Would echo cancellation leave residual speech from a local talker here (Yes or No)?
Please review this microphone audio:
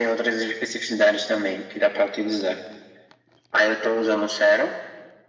No